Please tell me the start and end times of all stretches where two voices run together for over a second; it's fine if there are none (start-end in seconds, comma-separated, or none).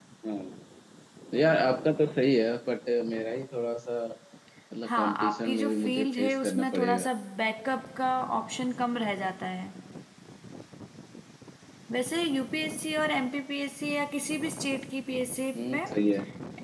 4.8-7.1